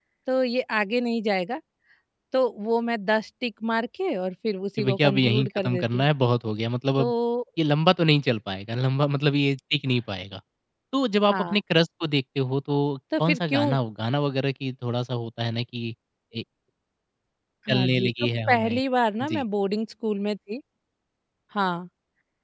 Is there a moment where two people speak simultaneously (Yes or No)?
Yes